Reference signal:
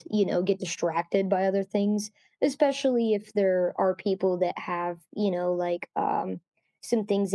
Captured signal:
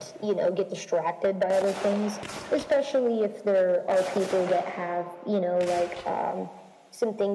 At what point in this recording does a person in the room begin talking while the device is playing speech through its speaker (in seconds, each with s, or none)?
none